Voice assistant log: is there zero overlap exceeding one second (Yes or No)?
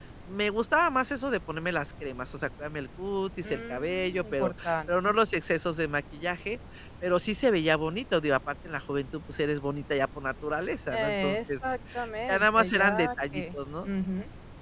No